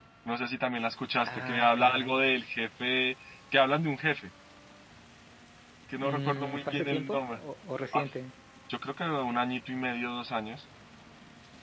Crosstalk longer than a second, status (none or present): present